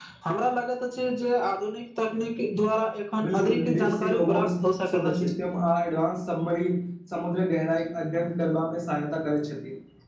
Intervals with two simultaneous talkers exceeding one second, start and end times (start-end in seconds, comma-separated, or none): 3.2-5.3